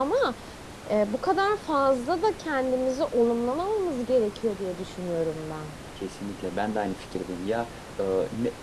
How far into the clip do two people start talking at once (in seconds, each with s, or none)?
none